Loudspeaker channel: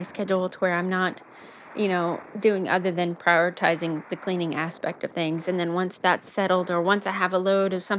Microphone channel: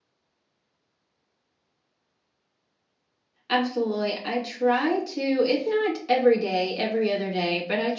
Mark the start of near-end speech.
3 s

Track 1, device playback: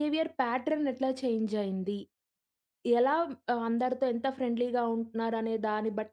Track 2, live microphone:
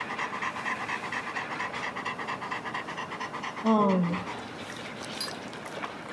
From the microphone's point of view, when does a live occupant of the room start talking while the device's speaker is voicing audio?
4 s

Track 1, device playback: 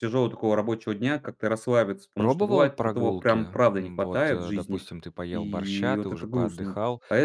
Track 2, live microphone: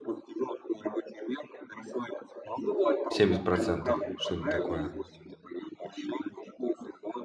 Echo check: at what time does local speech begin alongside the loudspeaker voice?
3 s

